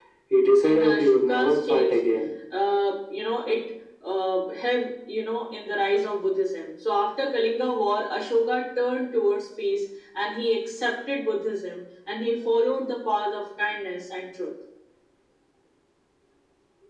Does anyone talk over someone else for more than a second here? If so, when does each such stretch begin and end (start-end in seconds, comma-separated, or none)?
0.6-2.0